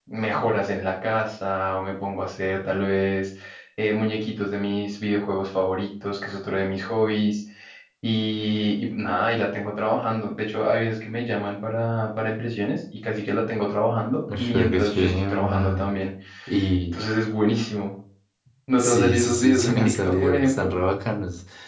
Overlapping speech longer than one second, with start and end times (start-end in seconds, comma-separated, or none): 14.4-15.7, 18.8-20.7